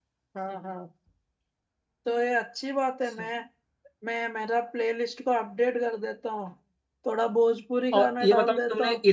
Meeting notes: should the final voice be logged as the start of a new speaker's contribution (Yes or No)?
Yes